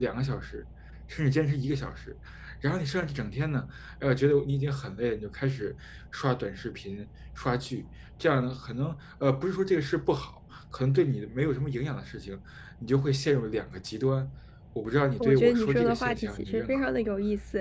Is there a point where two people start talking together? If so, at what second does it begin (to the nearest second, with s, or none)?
15 s